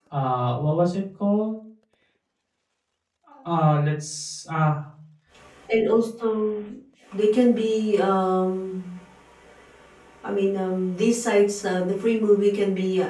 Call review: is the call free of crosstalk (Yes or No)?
Yes